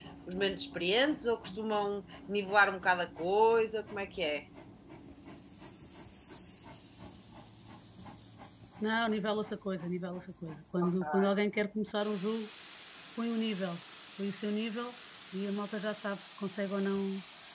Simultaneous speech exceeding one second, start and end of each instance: none

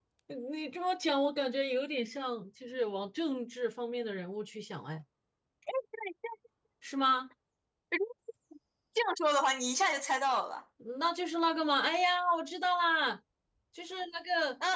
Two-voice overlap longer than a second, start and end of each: none

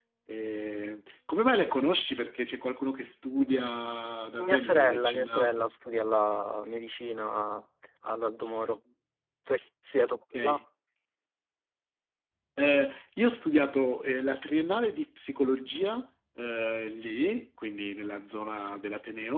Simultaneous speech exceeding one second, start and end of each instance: 4.5-5.7

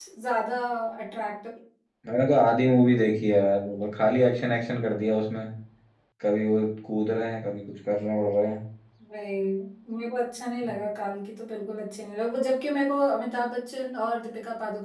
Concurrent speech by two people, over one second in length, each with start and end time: none

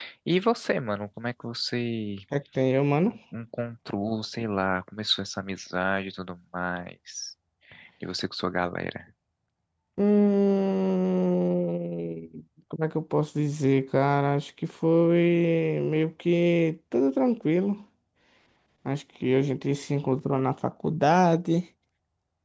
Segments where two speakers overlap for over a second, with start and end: none

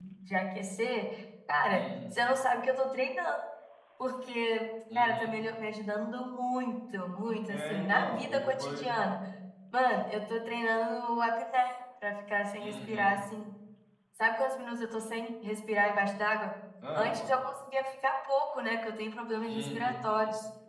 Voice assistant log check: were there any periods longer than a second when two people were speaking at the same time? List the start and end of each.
7.5-8.9

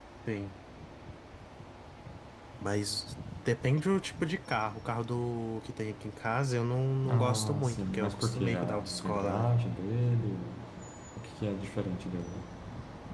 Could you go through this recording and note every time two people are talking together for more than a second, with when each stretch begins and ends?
7.1-9.5

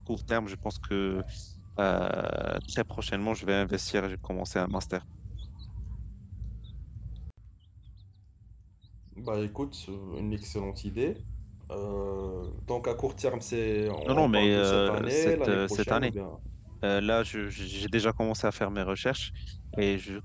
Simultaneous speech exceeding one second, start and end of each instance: 14.0-16.1

